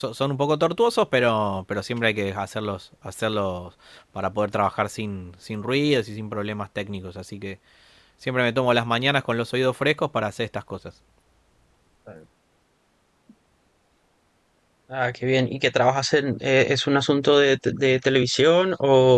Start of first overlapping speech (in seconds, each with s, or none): none